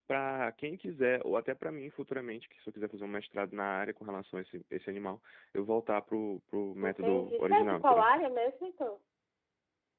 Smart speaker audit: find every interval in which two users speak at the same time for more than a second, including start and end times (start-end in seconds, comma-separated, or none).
6.8-8.1